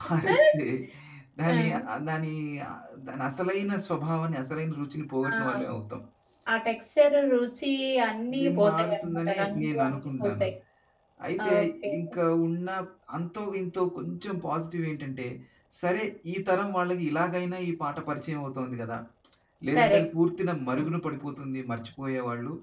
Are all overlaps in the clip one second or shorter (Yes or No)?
No